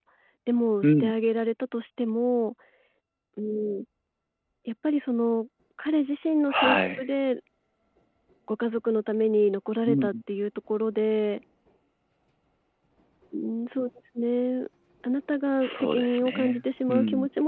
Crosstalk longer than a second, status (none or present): present